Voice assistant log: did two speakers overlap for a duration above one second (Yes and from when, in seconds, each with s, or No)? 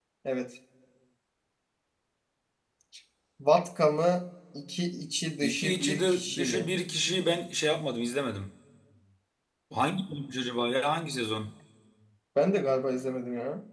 Yes, from 5.4 s